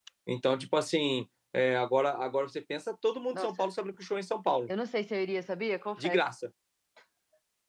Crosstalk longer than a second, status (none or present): none